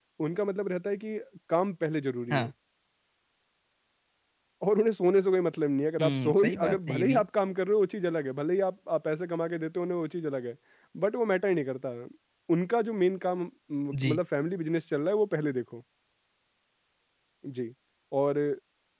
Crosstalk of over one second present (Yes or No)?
Yes